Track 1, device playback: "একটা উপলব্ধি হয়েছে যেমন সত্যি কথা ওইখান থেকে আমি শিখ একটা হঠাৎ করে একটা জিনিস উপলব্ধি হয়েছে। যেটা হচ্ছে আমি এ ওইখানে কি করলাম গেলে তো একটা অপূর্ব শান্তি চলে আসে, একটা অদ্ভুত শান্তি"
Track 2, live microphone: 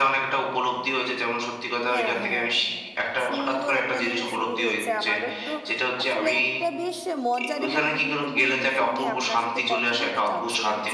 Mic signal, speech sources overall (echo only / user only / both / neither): both